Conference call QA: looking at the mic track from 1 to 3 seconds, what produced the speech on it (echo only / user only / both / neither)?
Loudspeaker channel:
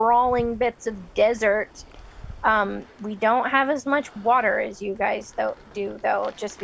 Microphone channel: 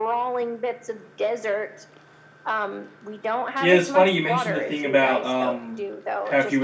echo only